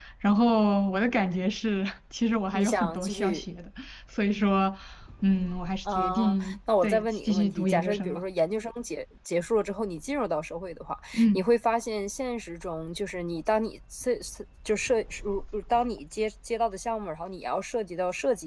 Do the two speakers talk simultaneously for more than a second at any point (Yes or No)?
Yes